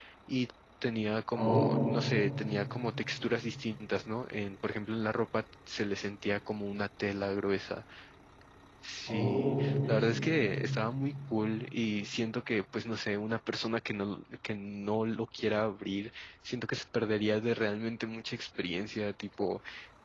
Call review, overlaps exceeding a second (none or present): present